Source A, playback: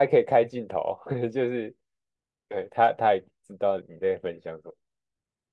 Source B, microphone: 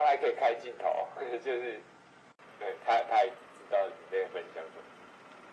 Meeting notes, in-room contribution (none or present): none